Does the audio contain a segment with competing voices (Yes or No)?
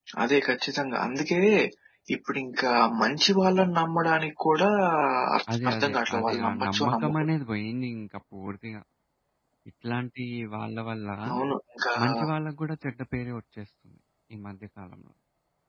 Yes